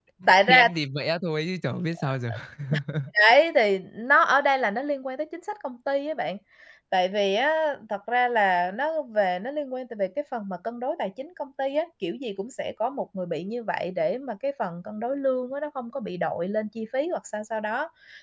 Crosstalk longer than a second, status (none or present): none